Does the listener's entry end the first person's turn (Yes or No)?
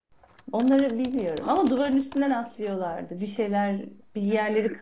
Yes